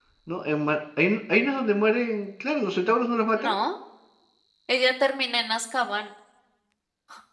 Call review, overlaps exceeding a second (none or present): none